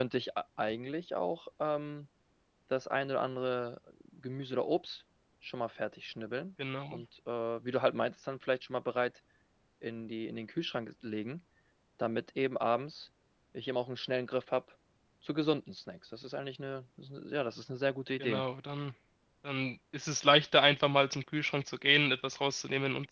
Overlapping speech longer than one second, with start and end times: none

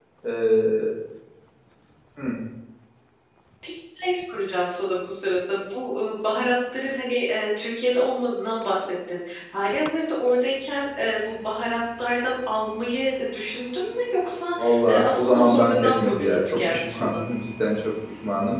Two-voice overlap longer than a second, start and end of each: 14.6-17.1

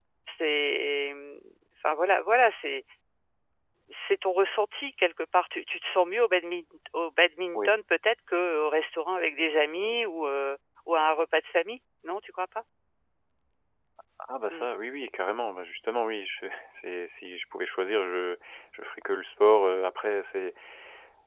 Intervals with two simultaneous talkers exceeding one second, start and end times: none

